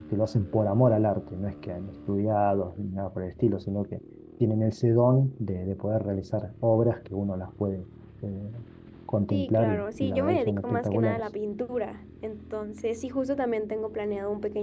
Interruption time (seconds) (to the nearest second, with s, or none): 9 s